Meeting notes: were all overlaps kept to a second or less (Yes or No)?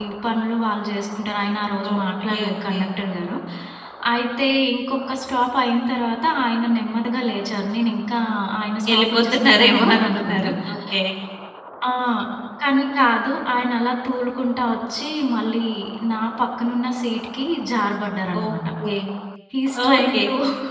No